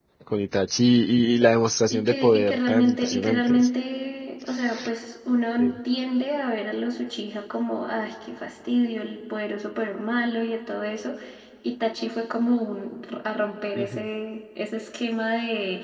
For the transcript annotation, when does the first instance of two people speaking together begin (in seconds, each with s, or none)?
1.9 s